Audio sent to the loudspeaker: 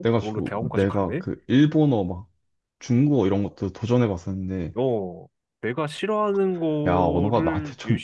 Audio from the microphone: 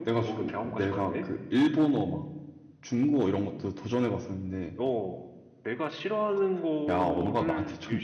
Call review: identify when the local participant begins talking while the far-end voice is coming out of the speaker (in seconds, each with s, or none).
none